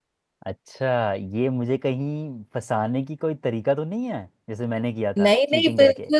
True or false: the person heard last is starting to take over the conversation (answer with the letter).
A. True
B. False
A